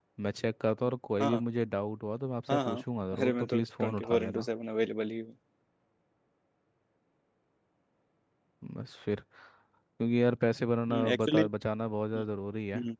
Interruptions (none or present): present